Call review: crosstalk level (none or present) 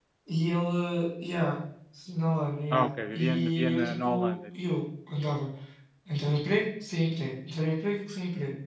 present